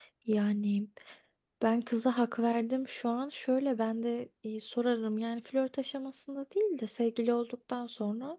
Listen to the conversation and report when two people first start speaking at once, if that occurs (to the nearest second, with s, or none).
none